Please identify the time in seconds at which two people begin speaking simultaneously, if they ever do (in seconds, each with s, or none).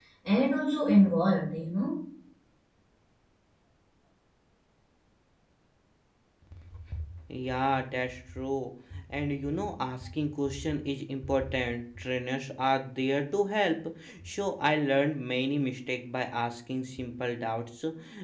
none